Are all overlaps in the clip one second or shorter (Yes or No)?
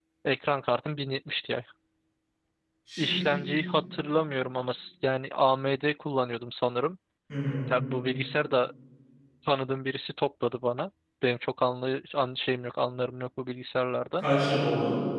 Yes